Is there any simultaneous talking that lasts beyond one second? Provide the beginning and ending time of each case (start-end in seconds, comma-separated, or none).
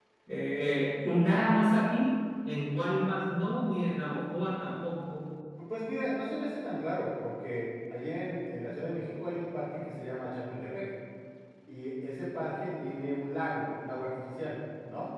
none